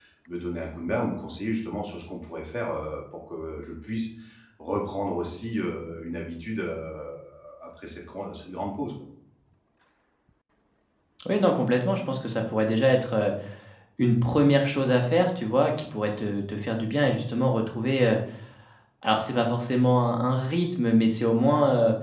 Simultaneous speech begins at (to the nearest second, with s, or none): none